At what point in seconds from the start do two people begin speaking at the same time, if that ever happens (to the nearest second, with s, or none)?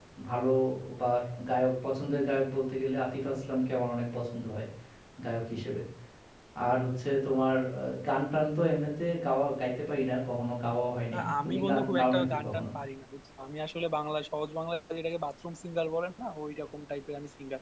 11 s